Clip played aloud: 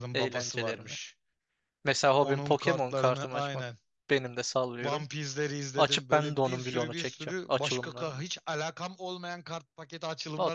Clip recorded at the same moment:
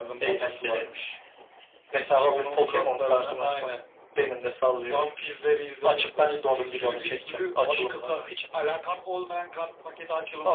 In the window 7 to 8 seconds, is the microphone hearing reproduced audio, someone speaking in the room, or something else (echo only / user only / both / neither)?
echo only